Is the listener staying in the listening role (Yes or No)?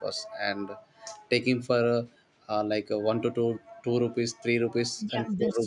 No